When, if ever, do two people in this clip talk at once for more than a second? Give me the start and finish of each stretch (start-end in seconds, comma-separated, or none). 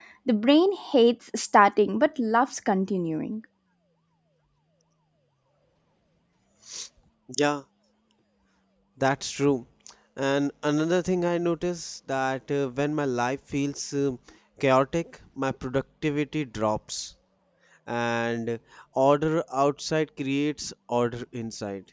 none